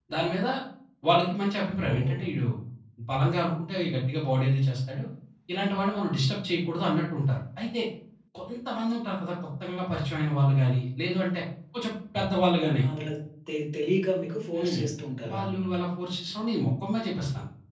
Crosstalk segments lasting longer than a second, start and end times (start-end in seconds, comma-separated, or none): none